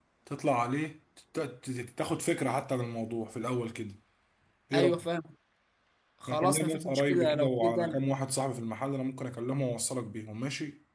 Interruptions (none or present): present